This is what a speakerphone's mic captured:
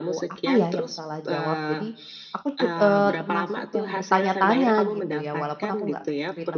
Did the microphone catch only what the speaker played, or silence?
No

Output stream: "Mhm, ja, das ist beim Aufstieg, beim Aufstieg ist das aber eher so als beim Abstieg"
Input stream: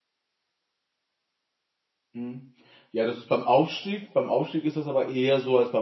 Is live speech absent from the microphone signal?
Yes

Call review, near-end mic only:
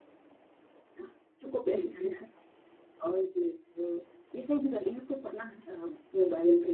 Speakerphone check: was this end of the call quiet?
Yes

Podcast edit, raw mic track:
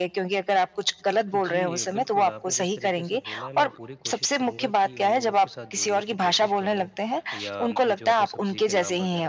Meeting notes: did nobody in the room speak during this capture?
No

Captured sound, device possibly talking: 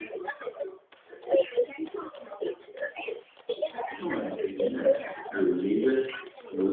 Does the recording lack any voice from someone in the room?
No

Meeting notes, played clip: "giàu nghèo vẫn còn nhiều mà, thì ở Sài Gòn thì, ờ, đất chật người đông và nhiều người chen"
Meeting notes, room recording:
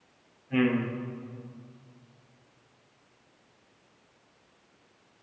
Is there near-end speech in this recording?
Yes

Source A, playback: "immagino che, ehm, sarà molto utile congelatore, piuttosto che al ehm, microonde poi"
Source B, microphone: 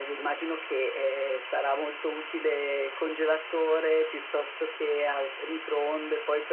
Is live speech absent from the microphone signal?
Yes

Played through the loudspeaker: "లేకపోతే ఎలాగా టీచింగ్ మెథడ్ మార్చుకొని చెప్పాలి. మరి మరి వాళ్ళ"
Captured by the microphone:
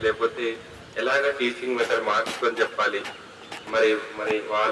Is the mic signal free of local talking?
Yes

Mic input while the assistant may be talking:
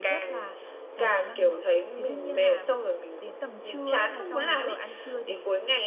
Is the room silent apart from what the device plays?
No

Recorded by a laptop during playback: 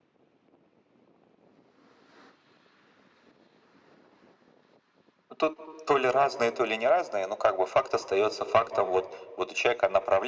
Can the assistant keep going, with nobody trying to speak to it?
Yes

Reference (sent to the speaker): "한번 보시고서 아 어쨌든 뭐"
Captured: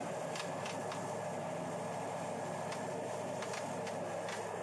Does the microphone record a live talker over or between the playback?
No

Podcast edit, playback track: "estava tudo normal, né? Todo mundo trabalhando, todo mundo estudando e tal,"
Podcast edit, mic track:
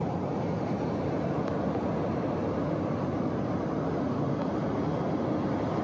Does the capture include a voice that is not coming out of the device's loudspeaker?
No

